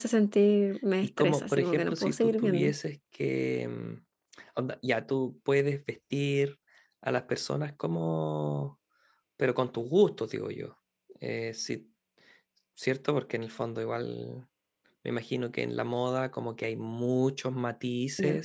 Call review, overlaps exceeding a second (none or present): present